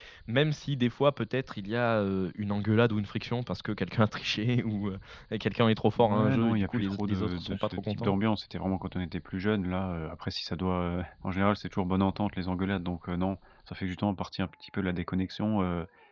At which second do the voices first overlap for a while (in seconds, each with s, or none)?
6.0 s